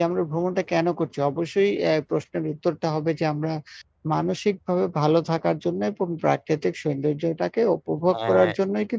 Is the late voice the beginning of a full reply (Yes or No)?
No